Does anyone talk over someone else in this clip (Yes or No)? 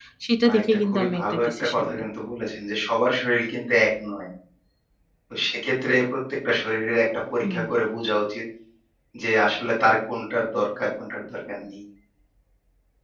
Yes